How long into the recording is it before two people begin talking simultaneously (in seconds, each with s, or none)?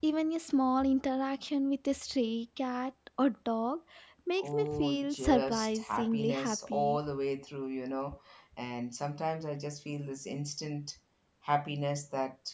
4.4 s